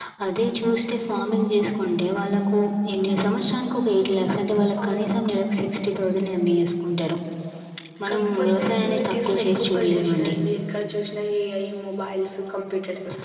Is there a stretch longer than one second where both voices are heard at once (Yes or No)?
Yes